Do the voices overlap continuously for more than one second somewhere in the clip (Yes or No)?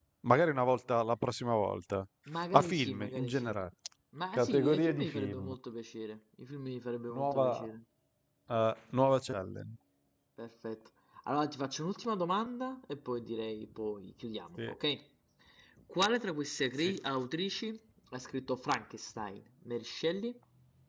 Yes